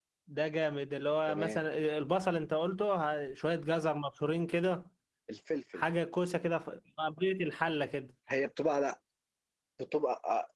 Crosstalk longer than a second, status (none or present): none